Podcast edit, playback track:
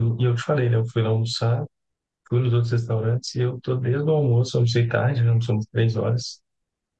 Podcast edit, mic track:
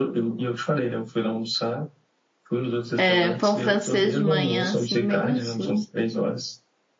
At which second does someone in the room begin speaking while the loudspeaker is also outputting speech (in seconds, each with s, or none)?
3.0 s